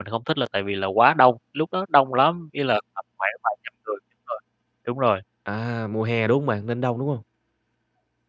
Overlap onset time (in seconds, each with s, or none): none